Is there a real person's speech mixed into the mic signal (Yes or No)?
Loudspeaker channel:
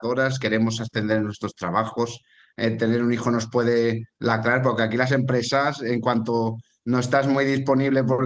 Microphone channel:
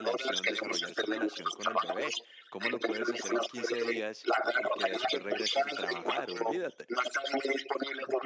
Yes